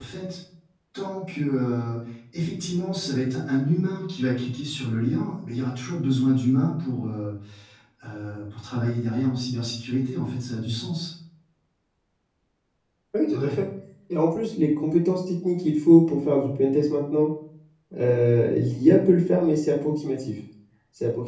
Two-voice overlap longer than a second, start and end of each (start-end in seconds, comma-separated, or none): none